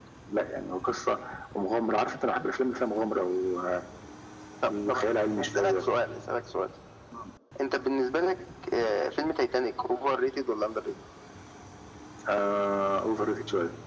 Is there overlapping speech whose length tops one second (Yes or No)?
No